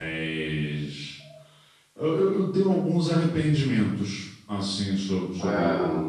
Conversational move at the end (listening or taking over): listening